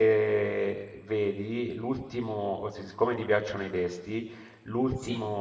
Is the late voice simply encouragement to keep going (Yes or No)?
Yes